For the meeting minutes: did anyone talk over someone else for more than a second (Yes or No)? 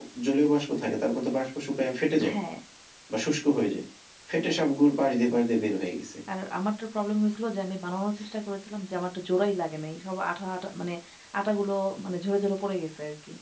No